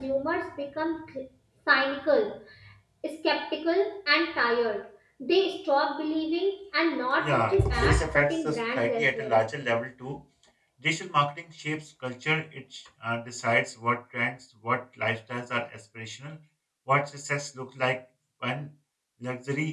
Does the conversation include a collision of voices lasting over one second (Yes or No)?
Yes